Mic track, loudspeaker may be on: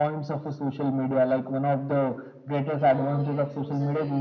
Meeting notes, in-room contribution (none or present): present